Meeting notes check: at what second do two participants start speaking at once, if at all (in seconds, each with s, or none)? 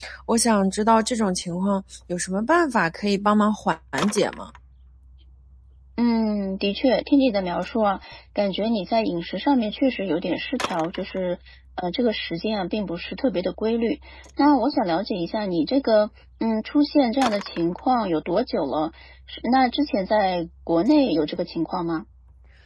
none